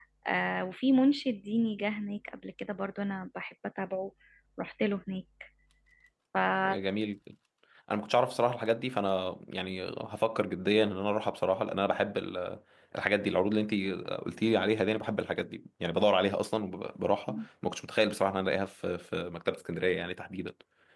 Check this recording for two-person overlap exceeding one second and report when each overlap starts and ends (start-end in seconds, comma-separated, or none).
none